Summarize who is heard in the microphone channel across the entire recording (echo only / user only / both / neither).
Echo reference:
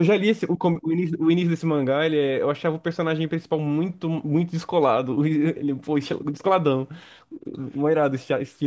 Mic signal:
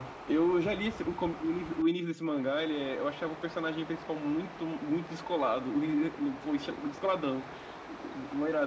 echo only